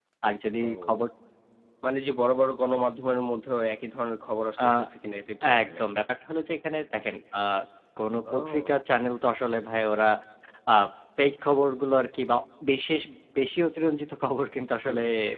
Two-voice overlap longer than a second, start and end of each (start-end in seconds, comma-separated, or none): none